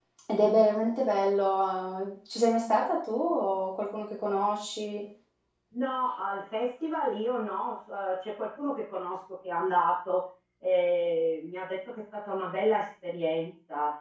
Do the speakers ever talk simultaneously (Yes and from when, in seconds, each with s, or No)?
No